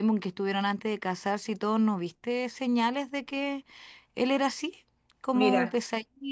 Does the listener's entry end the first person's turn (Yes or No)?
No